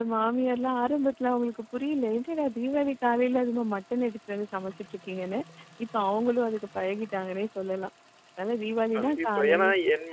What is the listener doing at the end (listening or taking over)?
taking over